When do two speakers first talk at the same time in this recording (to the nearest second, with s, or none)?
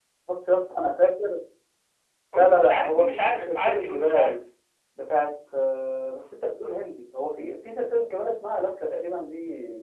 2 s